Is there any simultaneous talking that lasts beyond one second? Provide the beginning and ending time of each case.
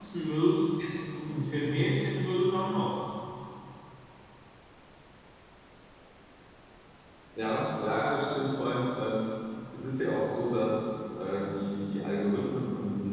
none

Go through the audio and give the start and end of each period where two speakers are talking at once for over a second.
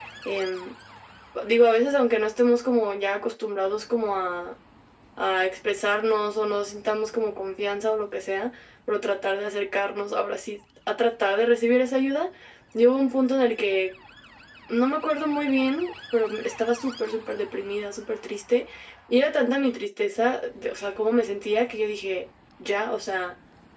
none

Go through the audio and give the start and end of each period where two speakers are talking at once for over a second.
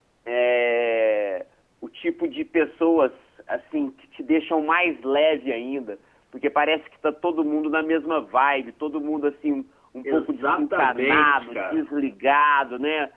10.0-11.8

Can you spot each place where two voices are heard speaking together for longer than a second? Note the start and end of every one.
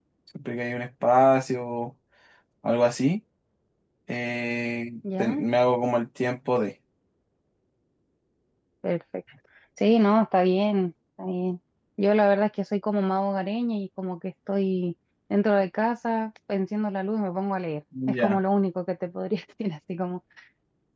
none

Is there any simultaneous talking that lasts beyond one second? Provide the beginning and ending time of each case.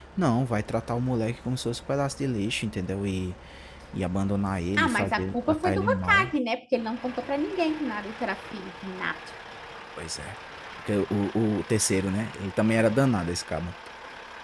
4.8-6.3

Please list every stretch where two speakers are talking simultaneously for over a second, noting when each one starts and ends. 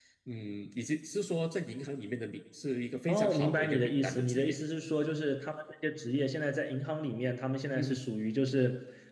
3.1-4.6

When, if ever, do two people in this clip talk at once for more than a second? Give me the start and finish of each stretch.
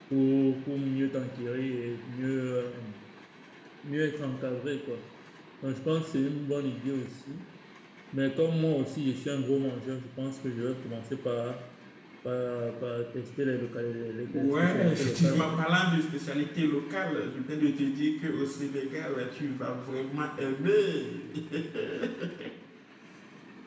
14.3-15.6

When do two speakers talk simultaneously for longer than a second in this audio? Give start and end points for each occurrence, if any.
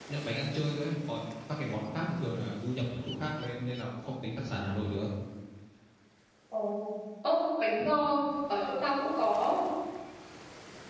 none

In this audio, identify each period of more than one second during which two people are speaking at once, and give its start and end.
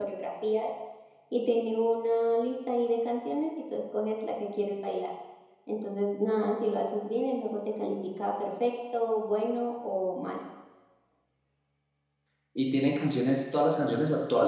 none

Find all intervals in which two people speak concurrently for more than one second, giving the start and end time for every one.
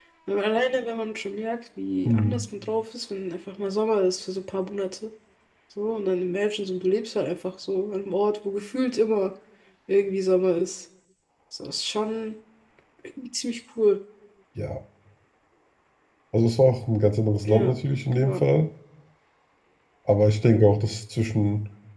none

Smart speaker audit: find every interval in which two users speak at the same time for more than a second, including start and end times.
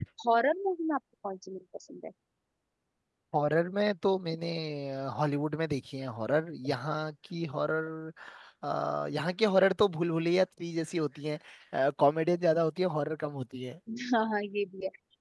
none

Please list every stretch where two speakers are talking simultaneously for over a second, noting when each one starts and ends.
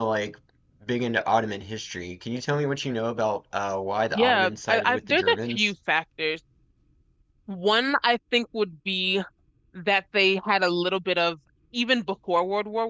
4.2-5.7

